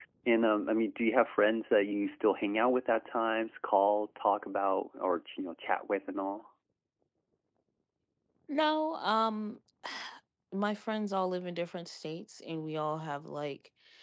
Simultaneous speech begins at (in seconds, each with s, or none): none